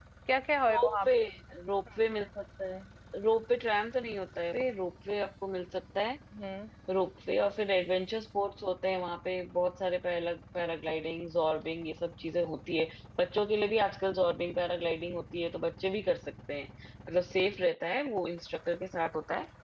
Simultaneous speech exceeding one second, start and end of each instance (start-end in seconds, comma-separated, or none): none